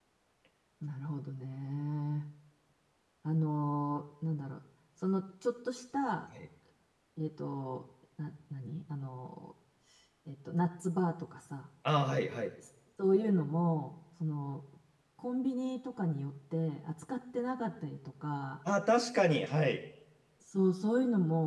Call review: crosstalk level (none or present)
none